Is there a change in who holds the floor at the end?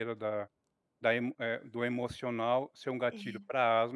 No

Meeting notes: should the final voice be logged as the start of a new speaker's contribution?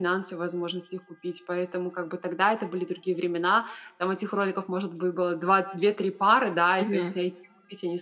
No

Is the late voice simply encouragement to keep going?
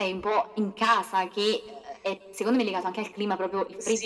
No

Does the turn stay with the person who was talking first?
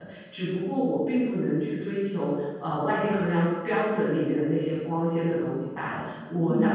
Yes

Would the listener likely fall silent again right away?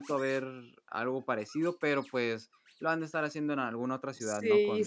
No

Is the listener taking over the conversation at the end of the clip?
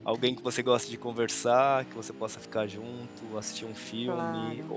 No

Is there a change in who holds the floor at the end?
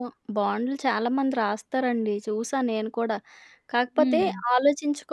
No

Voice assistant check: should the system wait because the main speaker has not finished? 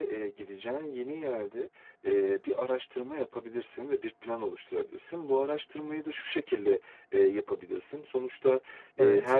Yes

